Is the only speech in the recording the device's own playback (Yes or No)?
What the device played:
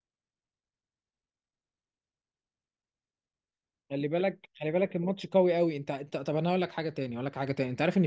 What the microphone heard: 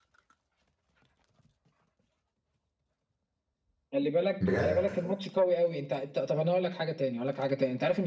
No